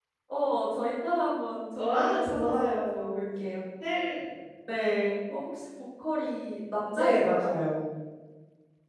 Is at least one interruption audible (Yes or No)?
Yes